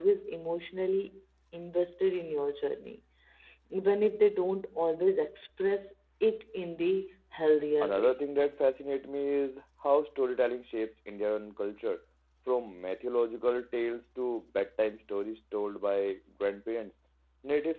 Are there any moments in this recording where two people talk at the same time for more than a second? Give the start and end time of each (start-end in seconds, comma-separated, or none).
none